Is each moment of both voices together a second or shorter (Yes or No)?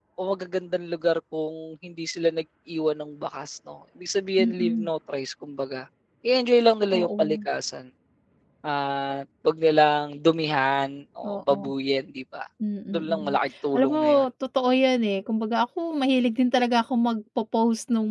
Yes